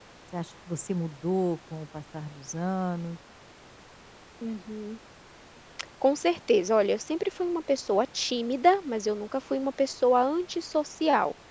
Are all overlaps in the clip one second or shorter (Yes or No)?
Yes